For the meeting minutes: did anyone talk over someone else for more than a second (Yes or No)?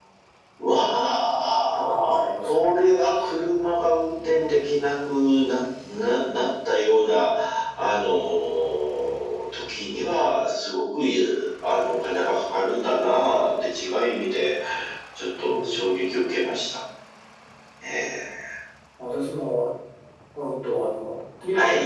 Yes